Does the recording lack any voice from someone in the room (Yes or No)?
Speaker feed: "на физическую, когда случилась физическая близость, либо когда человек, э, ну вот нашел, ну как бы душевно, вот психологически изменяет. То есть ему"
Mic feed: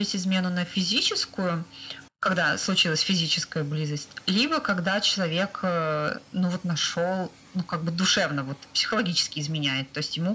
Yes